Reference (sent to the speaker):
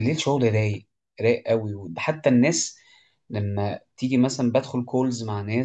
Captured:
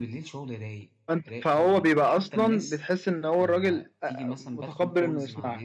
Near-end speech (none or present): present